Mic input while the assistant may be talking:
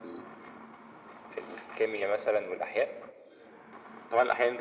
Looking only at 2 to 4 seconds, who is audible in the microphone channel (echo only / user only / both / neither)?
echo only